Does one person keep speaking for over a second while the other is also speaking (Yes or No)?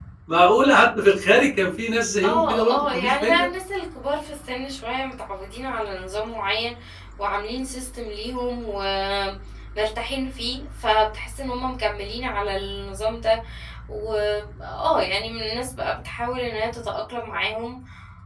Yes